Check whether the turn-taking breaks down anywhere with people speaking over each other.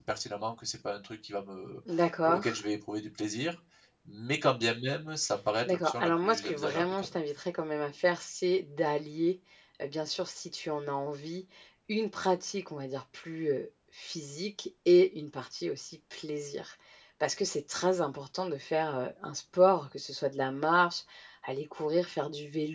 Yes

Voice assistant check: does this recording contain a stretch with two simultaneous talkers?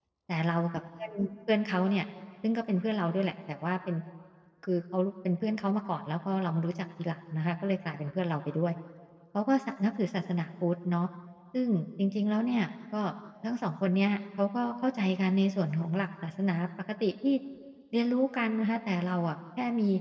No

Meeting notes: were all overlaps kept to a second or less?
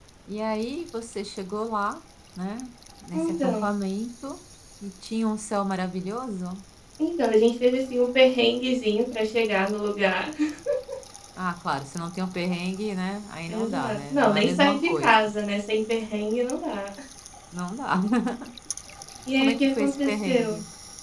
No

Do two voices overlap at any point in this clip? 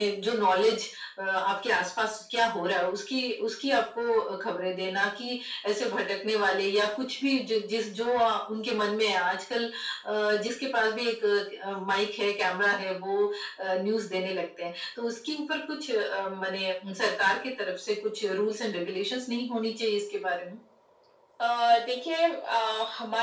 No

